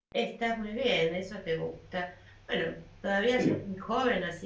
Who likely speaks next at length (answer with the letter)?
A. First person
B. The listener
A